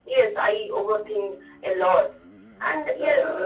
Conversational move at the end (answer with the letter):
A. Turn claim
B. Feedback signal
B